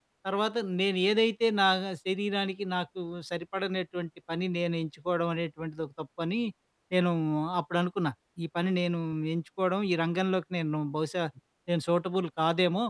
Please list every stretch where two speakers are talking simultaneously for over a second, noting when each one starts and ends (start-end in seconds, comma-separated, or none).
none